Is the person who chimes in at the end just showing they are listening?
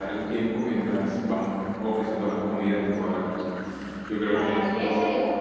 No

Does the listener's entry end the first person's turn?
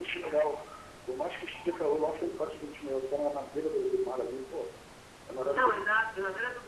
Yes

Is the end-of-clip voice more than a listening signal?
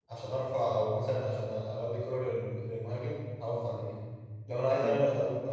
No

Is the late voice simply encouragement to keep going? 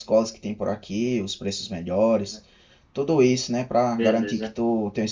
Yes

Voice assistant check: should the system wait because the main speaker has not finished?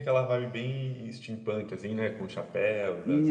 No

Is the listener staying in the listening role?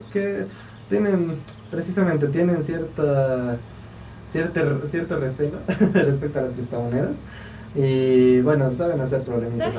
No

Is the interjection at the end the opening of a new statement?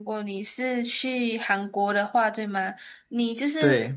No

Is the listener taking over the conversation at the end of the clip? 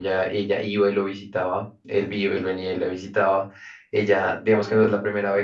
No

